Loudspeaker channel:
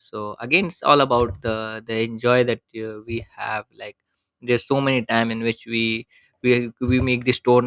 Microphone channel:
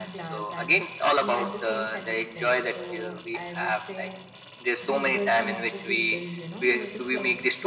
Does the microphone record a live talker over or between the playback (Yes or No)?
Yes